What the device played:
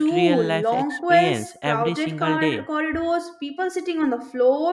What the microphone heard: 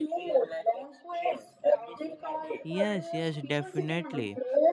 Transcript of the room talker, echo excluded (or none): Yes, yes, definitely.